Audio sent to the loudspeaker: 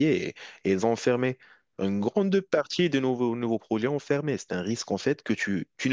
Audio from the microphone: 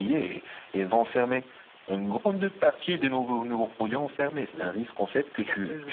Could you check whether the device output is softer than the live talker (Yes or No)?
No